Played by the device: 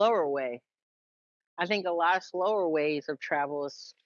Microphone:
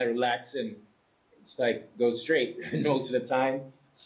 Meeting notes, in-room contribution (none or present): present